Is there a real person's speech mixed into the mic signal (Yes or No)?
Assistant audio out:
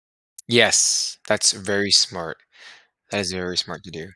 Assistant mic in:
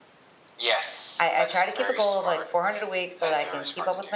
Yes